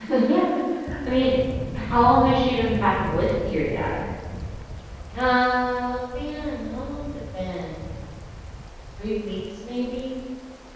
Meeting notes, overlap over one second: none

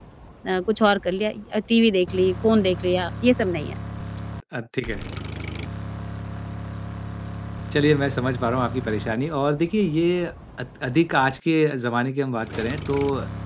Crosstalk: none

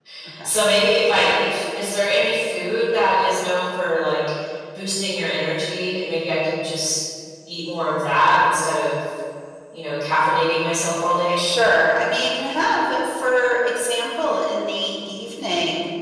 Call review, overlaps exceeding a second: none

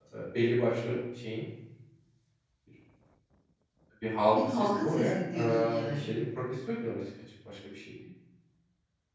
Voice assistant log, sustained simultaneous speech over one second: present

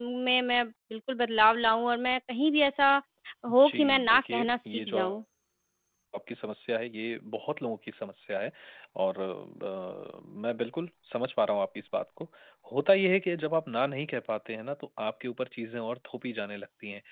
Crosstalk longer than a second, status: present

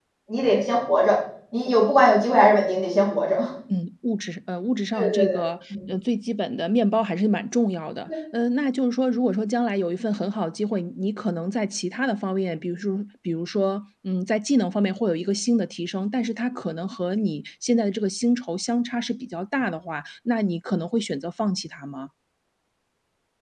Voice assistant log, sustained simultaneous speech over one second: none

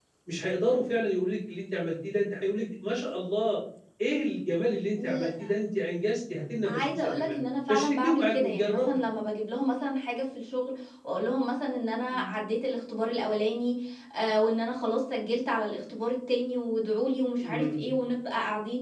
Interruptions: present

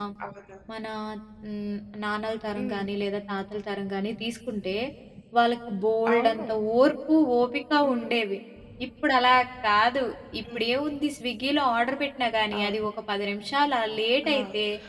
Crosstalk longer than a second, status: none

